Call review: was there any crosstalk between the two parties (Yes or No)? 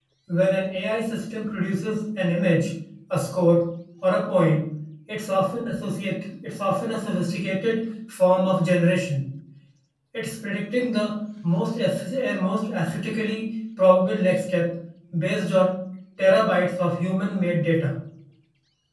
No